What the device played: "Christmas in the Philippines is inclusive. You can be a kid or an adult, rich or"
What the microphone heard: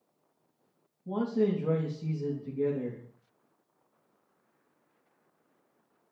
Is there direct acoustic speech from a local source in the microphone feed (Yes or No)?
Yes